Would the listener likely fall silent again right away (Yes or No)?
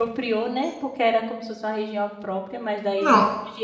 Yes